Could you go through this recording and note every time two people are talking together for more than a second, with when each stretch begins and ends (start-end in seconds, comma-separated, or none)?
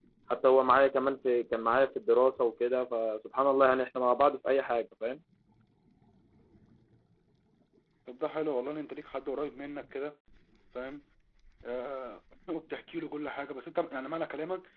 none